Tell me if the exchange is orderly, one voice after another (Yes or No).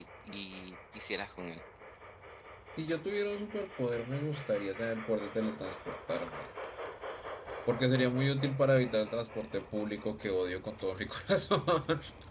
Yes